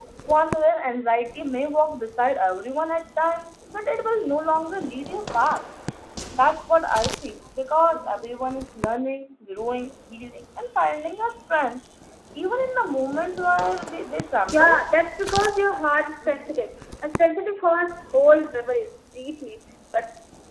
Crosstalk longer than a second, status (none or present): none